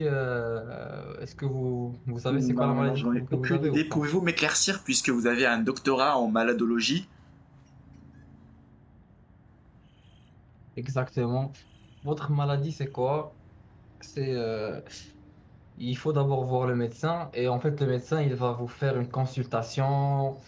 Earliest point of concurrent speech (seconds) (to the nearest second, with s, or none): 2 s